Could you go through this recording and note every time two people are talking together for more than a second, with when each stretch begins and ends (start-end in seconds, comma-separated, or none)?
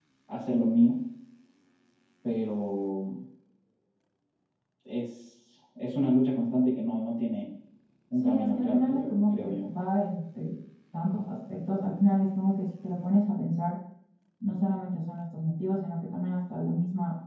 8.1-9.6